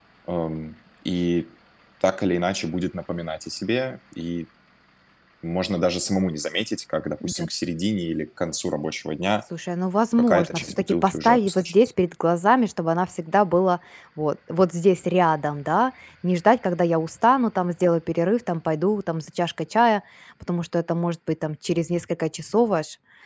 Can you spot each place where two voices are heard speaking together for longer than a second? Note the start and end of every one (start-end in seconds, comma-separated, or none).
10.2-11.7